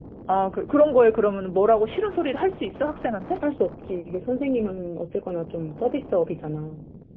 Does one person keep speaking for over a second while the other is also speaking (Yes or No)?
No